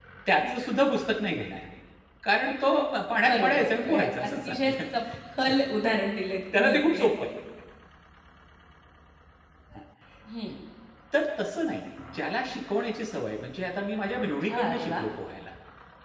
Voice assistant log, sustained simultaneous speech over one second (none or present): present